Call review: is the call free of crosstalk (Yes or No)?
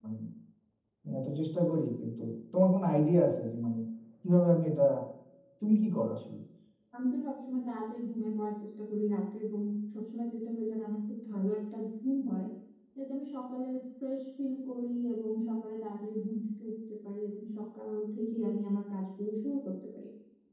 Yes